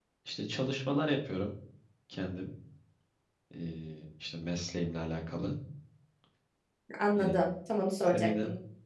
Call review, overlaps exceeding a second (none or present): none